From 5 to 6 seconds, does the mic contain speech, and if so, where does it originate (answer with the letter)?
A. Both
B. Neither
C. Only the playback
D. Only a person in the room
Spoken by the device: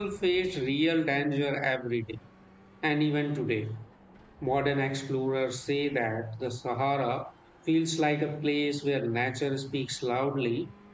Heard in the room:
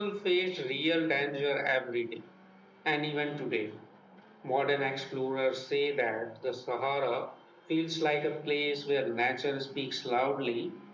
C